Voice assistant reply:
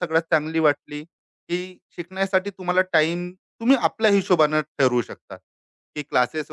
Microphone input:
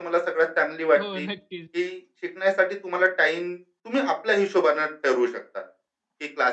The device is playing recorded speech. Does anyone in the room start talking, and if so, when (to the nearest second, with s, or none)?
1 s